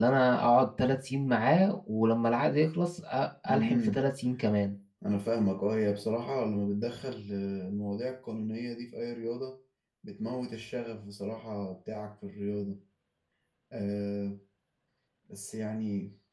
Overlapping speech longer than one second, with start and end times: none

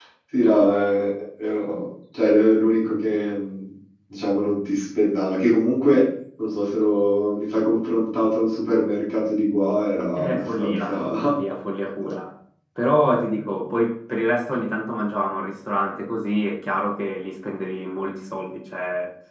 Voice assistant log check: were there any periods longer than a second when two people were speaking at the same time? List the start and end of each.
10.2-11.4

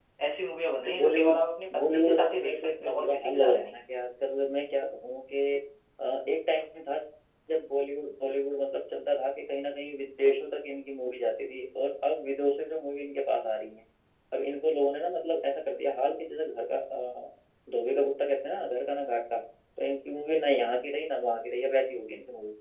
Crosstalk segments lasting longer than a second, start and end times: 1.8-3.8

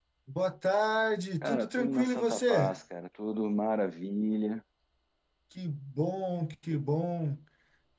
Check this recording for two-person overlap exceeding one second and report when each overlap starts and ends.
1.4-2.8

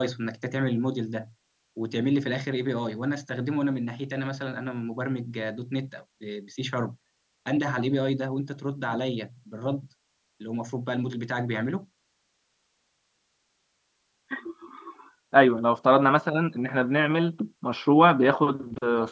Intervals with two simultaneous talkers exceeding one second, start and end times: none

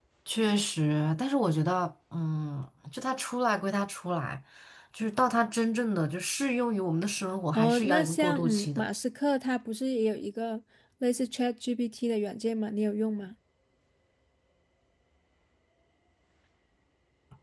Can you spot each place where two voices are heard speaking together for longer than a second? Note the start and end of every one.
7.5-8.8

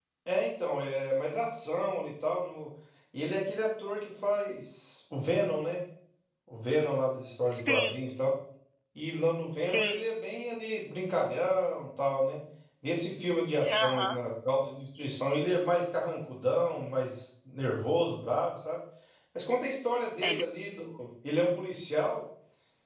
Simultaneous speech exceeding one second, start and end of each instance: none

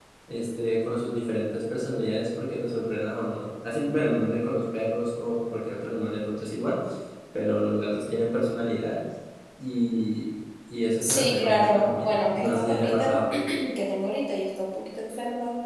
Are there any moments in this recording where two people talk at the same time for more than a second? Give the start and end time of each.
11.0-13.2

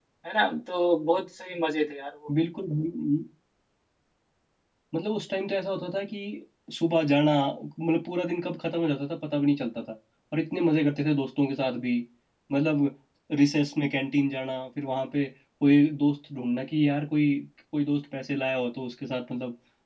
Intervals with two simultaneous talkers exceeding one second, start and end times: none

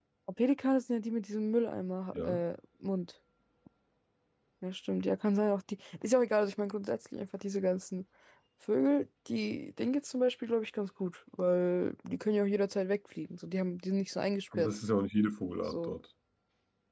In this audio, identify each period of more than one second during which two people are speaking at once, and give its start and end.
none

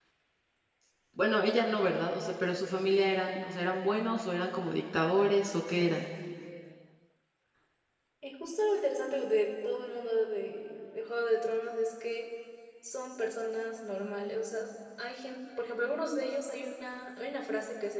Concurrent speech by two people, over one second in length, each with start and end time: none

